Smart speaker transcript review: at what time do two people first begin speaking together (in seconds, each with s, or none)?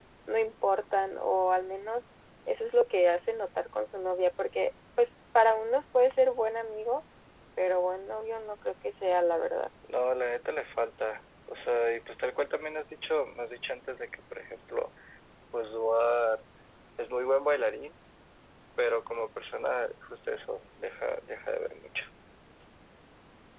none